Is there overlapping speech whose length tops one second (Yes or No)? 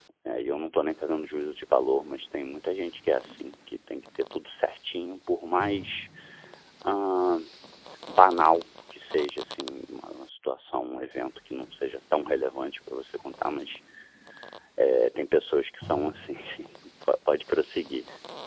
No